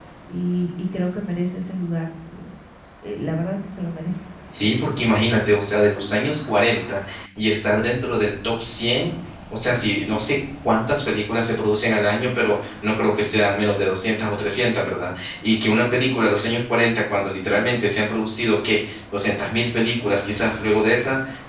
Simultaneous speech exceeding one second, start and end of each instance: none

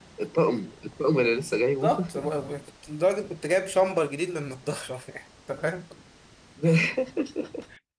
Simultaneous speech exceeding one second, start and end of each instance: none

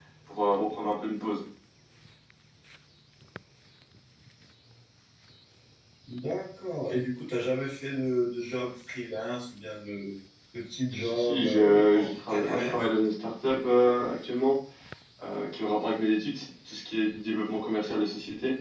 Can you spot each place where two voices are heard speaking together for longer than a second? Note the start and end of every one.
10.9-12.8

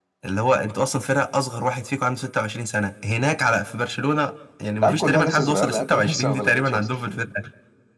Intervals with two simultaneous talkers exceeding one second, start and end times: 4.8-7.2

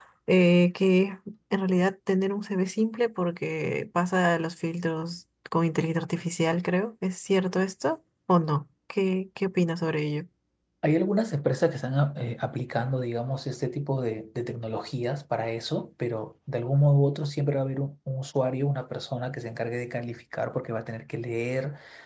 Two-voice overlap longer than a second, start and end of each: none

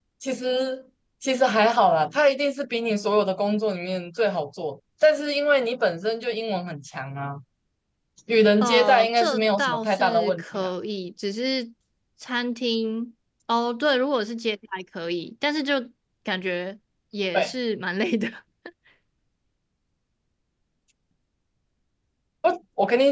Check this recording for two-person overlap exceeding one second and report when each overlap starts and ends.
8.6-10.7

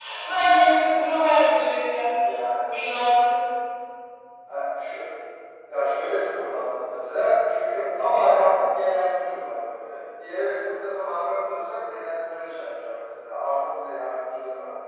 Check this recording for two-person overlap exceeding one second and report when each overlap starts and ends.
none

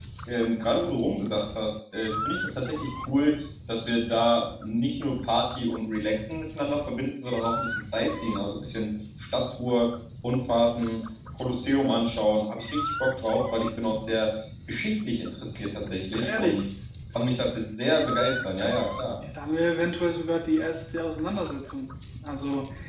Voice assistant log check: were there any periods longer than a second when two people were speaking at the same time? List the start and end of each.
none

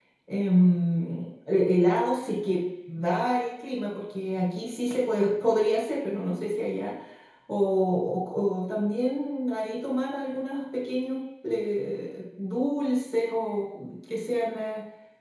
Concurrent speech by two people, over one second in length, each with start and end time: none

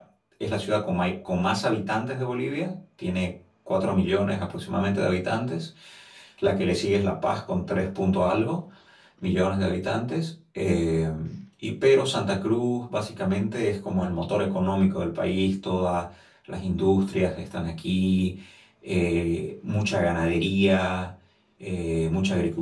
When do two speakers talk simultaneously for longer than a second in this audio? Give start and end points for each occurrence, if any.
none

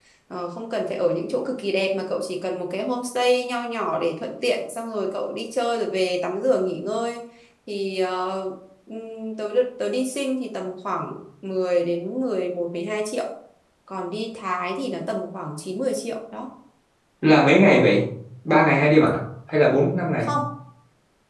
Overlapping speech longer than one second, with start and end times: none

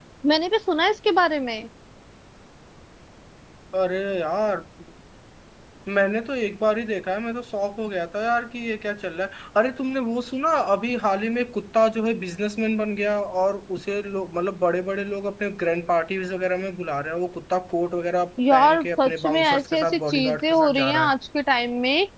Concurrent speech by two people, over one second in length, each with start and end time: 18.5-21.1

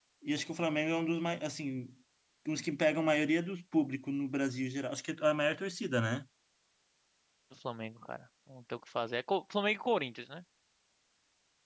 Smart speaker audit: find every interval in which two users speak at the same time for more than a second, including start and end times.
none

